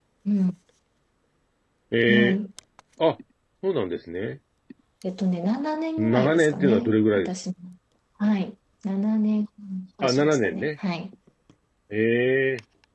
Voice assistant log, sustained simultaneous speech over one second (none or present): present